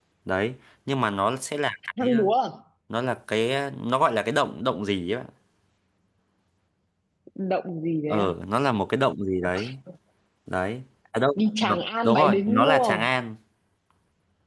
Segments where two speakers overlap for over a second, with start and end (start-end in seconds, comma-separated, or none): 11.3-13.1